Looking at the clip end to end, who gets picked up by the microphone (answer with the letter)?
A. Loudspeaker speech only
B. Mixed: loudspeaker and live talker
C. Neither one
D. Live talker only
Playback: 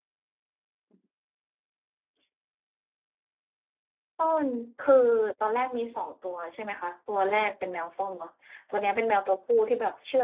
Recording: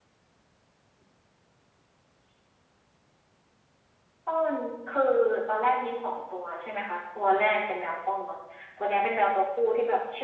A